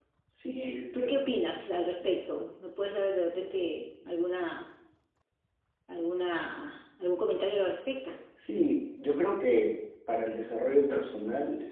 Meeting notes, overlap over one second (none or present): none